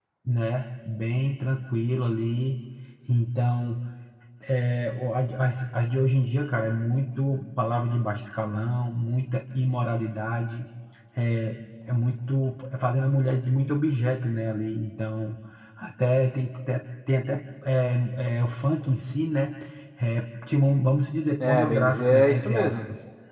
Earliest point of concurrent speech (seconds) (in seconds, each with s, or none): 21.4 s